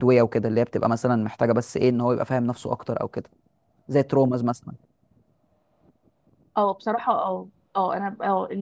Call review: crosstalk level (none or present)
none